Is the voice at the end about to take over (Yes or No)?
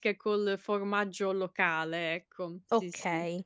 Yes